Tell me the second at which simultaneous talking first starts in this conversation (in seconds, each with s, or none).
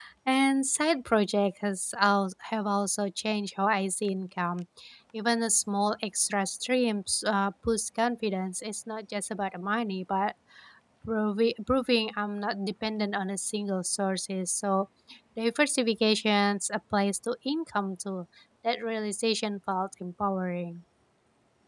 none